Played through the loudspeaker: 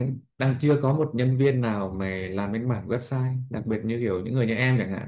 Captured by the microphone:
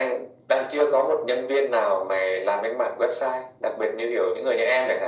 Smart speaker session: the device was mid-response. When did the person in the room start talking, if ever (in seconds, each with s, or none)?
none